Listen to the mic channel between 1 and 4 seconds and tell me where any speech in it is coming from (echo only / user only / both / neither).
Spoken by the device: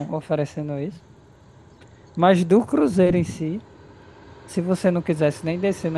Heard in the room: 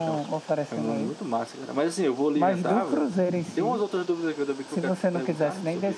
both